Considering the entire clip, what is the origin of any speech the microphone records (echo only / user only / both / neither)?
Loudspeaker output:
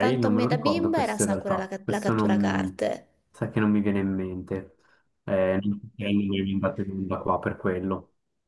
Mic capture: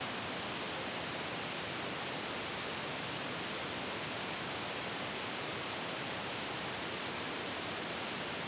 neither